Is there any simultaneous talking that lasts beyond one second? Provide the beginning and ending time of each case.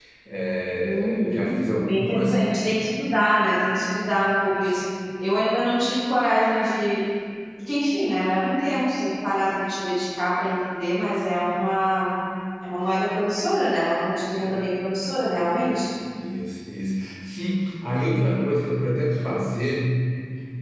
0.8-2.4

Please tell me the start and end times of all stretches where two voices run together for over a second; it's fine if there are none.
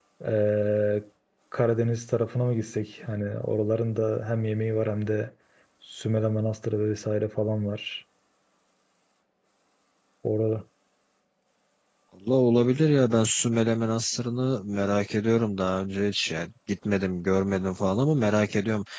none

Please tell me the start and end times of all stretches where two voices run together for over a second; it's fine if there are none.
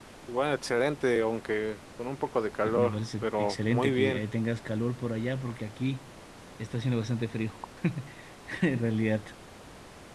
2.6-4.2

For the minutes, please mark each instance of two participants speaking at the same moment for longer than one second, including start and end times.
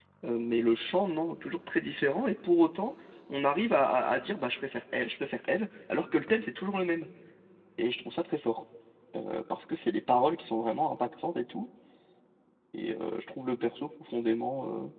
none

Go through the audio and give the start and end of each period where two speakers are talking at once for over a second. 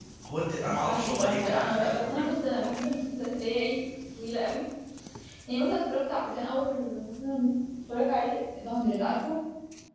0.6-2.3

